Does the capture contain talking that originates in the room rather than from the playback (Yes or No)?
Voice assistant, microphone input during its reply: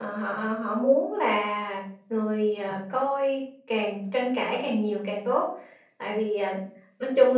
Yes